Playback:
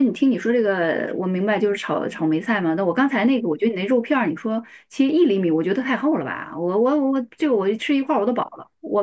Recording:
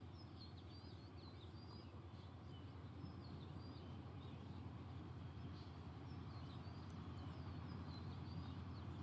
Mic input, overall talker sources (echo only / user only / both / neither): neither